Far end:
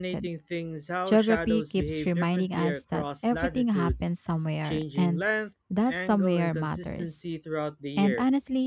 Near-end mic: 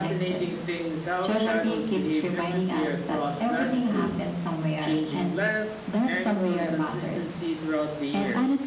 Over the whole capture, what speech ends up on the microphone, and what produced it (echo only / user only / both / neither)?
echo only